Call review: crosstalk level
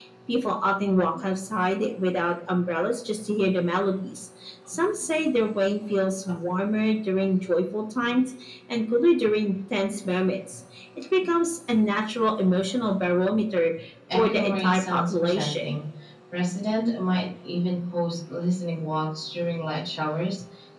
present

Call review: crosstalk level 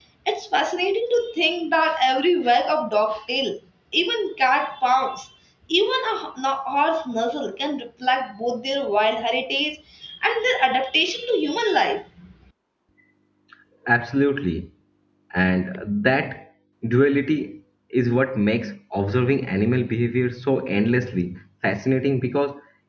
none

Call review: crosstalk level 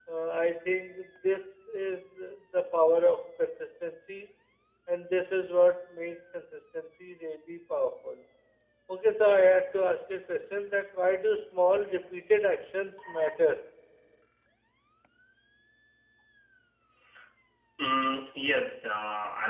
none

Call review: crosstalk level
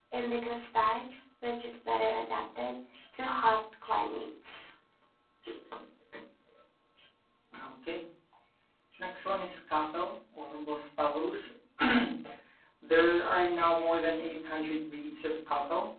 none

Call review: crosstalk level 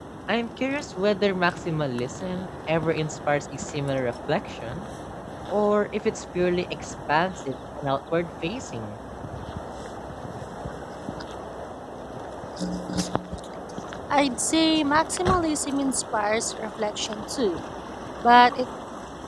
none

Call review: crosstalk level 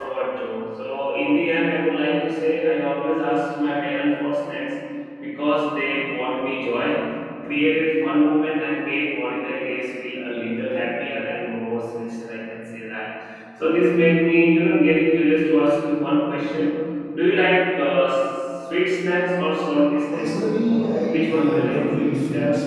present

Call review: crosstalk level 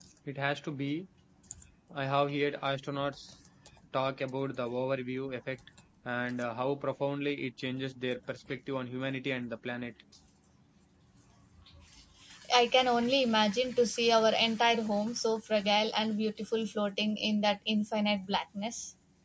none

